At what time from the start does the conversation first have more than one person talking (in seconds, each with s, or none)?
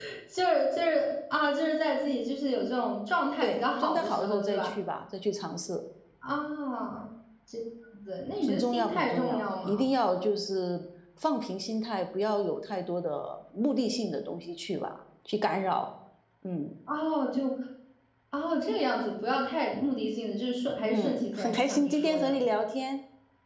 3.4 s